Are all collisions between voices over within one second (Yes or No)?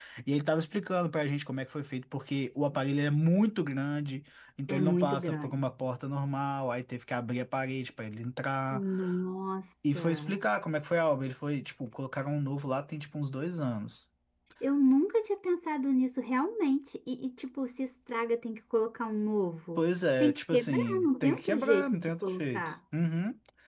No